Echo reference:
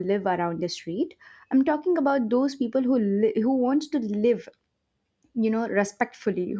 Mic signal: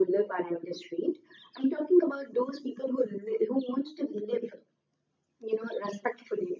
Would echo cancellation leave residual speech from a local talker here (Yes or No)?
No